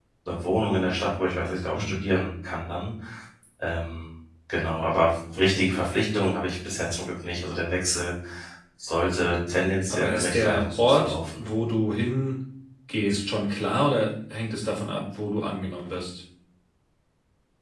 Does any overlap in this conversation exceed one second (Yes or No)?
Yes